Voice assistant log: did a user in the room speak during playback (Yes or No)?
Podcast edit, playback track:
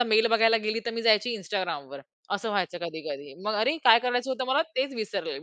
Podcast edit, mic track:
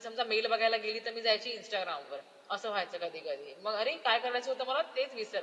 No